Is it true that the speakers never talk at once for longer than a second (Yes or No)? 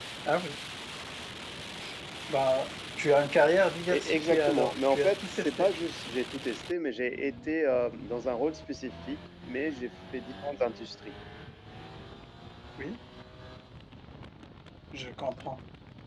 No